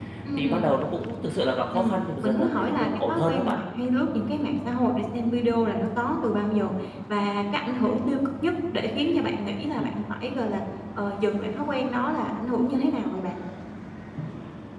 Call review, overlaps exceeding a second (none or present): present